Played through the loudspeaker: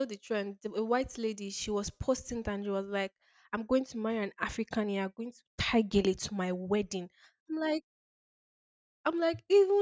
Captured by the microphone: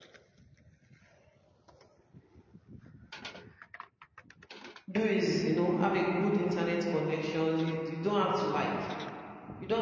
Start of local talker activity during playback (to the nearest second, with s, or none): 5 s